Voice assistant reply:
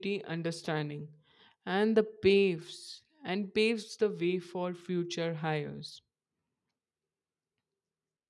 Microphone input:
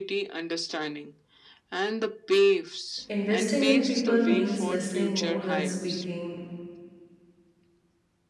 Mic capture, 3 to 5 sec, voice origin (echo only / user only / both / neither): both